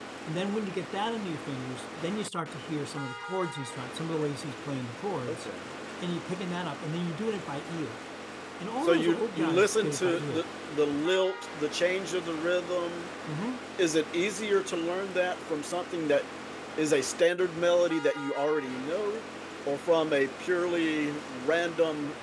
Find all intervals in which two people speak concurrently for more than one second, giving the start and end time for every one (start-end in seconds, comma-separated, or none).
8.8-10.5